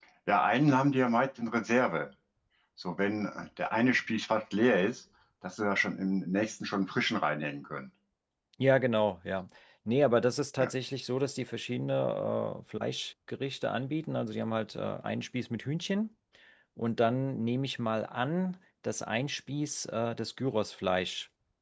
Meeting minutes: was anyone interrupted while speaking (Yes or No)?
No